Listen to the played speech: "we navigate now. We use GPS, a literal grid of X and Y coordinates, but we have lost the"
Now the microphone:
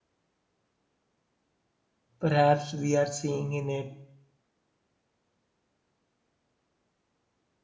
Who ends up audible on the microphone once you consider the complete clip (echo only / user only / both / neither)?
user only